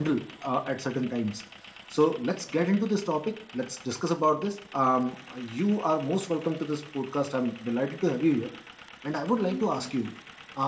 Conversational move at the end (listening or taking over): listening